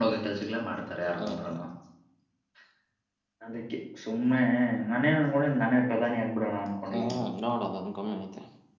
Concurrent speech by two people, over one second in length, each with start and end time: none

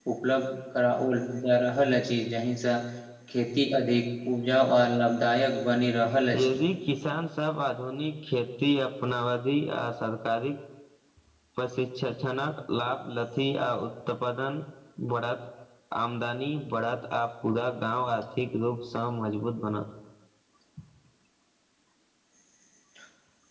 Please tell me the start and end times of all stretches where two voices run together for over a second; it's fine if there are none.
none

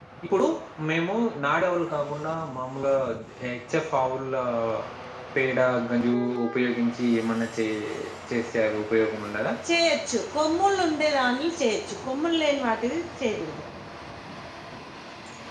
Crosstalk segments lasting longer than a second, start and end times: none

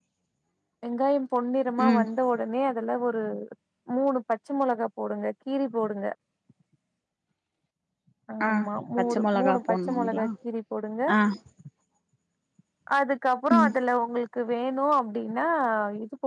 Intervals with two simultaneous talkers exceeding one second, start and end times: 9.0-10.2

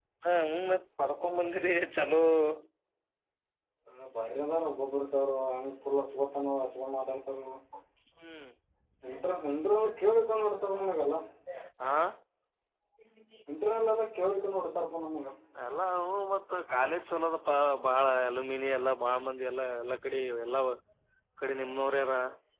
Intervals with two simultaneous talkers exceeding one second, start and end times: none

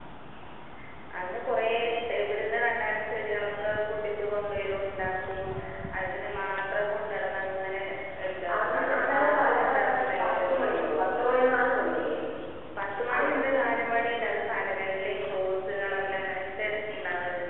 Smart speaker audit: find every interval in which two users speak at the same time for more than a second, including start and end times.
8.6-10.6

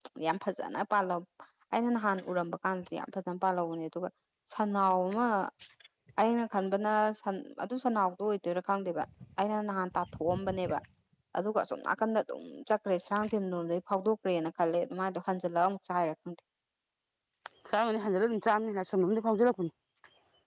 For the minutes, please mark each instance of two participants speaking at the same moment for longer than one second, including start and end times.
none

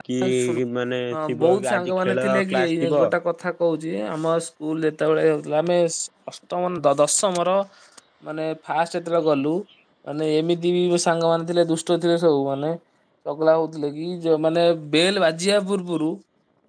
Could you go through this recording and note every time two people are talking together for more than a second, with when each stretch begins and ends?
1.1-2.9

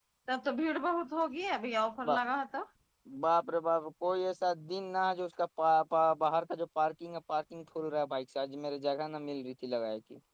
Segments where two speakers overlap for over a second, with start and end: none

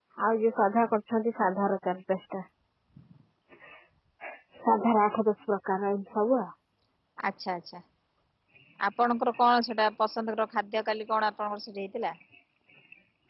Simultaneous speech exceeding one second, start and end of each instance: none

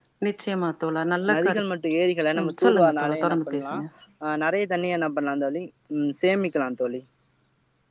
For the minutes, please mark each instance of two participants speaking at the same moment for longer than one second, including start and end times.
2.4-3.7

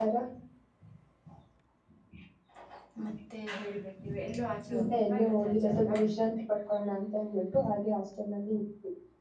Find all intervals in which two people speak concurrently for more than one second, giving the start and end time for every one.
4.8-6.0

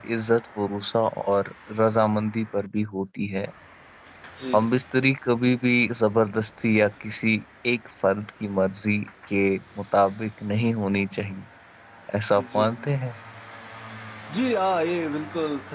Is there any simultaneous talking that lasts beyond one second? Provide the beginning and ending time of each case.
none

